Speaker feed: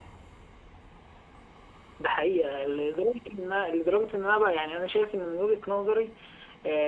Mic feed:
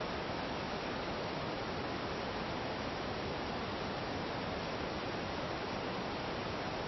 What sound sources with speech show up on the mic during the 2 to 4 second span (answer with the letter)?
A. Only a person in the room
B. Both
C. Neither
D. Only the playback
C